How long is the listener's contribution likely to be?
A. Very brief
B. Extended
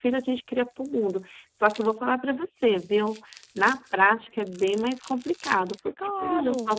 A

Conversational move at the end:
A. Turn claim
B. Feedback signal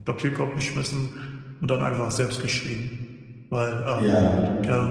B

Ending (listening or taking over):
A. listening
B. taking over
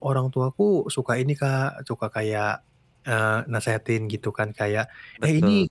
A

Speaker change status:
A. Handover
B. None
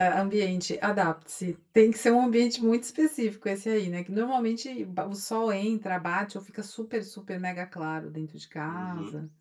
A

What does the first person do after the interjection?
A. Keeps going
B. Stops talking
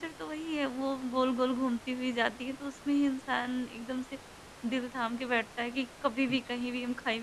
A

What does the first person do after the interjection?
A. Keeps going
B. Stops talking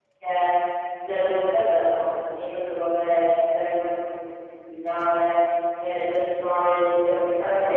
A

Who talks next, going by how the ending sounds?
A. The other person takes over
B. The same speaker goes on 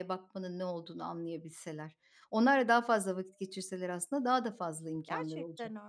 A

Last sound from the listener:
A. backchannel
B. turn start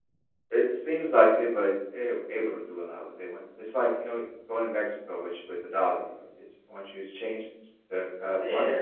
B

